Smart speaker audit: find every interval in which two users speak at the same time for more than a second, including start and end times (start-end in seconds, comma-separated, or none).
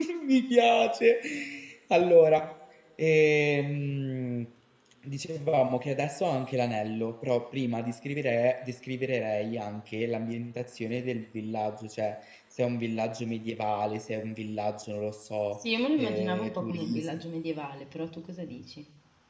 15.7-17.1